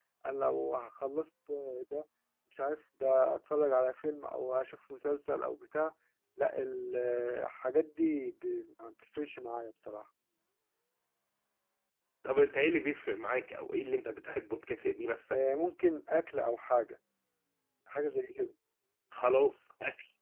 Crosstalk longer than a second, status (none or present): none